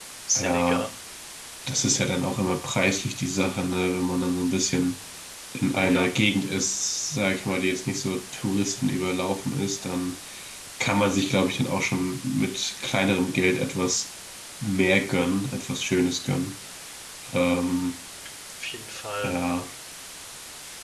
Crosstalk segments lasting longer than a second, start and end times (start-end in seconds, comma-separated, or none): none